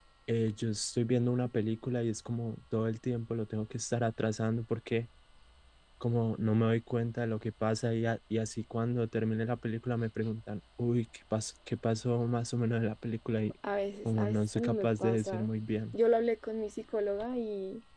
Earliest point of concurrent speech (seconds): 14.1 s

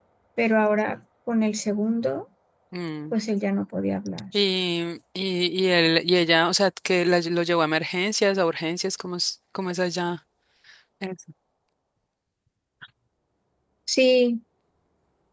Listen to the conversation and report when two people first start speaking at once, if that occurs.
none

